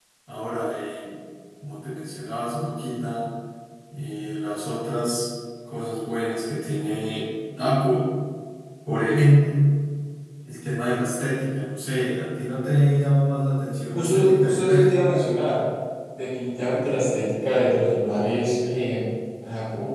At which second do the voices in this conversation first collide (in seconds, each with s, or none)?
13.9 s